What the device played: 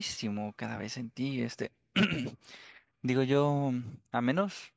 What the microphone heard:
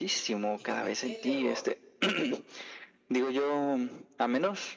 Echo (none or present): present